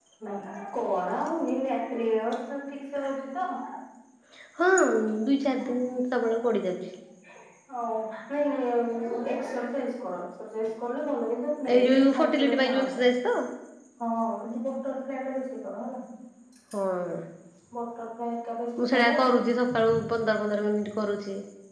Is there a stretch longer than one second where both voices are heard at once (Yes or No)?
Yes